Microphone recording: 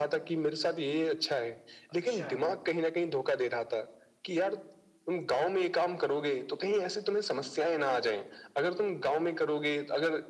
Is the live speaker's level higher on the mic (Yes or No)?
No